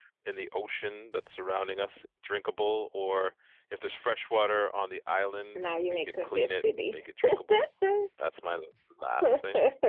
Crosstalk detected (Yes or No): Yes